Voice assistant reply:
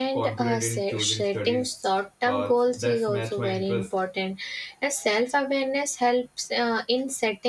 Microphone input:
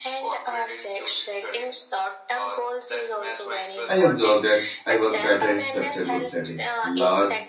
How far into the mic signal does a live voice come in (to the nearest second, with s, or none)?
4 s